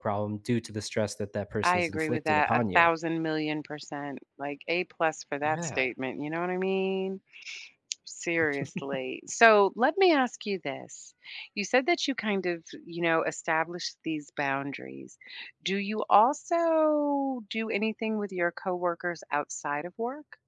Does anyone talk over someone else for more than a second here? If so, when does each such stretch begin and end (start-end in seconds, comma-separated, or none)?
1.6-2.9